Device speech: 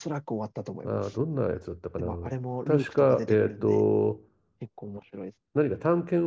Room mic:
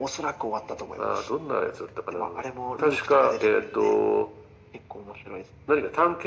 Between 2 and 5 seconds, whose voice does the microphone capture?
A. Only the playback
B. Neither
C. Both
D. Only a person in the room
A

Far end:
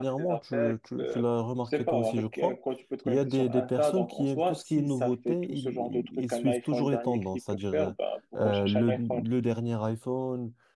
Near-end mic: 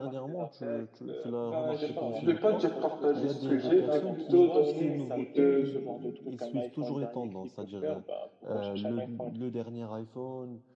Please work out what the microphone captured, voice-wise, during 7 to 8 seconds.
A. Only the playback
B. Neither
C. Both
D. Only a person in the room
A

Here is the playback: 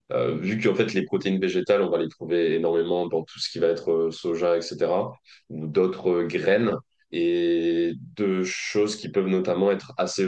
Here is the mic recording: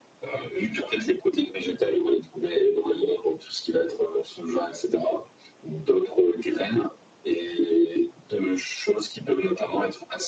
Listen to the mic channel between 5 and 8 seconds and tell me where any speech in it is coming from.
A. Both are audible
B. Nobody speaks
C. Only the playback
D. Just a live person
C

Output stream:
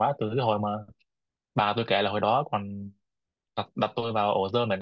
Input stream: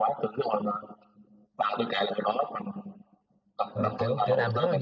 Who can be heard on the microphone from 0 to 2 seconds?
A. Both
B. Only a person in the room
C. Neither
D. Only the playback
D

